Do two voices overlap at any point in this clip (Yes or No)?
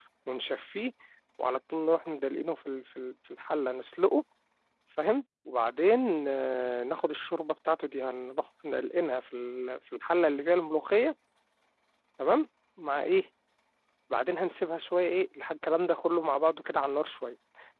No